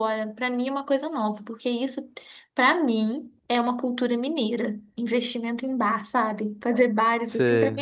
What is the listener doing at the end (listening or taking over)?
listening